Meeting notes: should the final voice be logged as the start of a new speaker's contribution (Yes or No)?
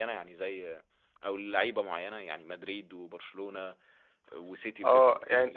Yes